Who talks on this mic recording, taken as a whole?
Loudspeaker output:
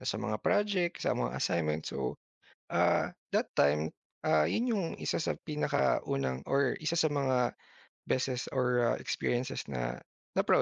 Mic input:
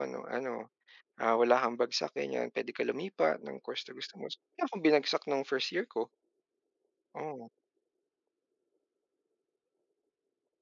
user only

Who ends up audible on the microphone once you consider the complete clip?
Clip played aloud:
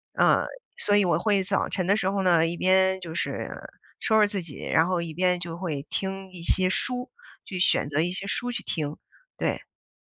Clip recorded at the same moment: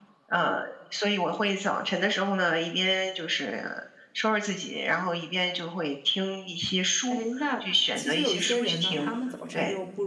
both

